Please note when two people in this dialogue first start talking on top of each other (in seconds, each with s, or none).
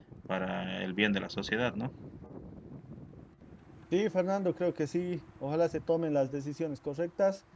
none